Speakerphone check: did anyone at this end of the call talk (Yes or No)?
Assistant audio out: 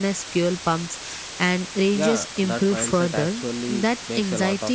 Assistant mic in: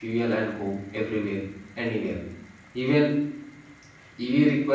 Yes